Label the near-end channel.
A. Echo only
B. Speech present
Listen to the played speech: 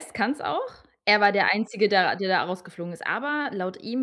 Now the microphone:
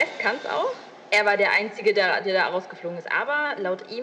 A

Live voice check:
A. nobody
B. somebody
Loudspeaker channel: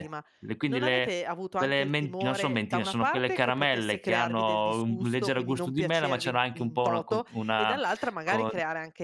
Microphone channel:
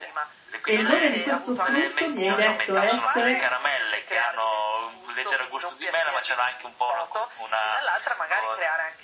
B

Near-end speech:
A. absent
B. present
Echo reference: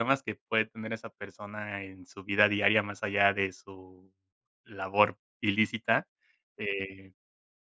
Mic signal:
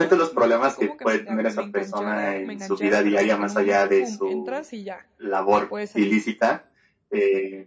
B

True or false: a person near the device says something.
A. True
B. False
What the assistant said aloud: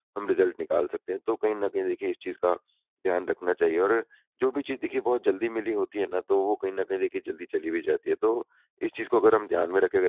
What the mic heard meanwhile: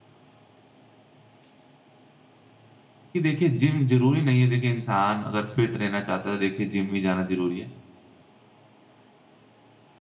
A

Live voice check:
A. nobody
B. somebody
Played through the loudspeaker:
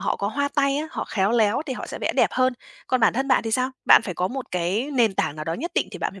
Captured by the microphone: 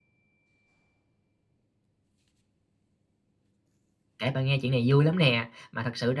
B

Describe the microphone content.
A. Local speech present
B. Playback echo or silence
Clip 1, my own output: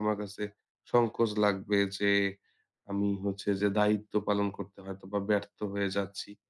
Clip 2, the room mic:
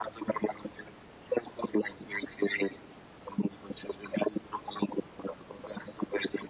B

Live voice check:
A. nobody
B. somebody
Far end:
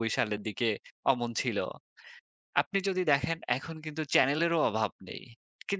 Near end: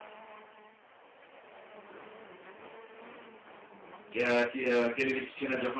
B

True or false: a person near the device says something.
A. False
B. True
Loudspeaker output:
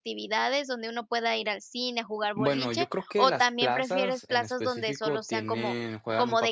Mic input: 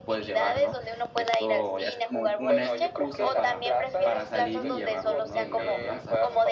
B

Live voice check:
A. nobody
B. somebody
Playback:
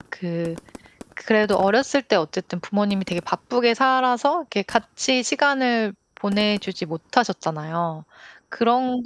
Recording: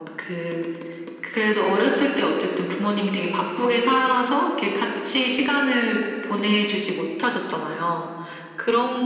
A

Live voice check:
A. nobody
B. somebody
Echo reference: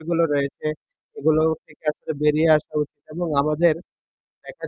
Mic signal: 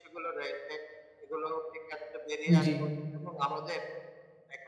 B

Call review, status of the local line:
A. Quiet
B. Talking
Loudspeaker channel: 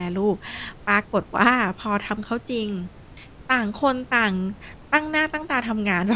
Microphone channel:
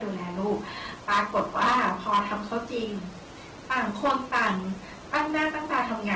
A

